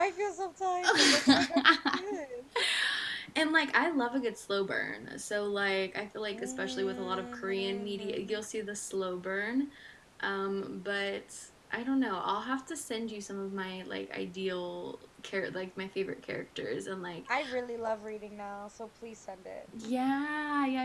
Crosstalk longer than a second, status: present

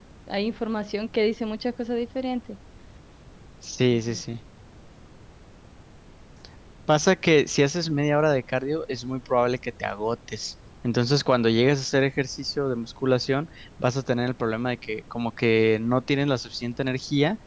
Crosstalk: none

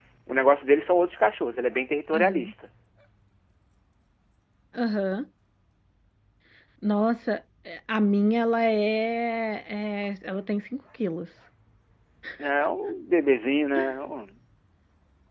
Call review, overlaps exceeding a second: none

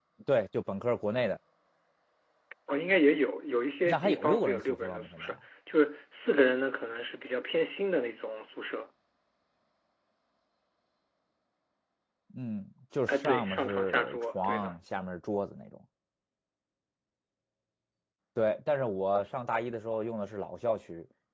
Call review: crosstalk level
present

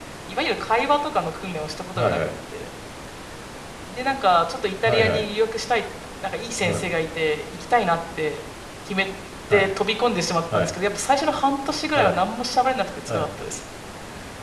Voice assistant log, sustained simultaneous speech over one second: none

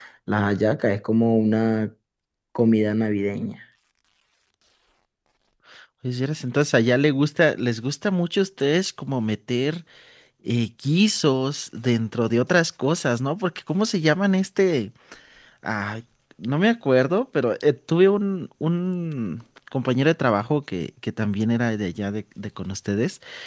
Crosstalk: none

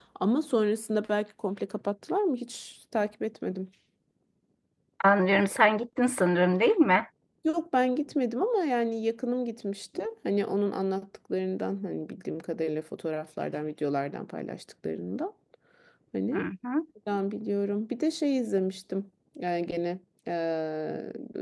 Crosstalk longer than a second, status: none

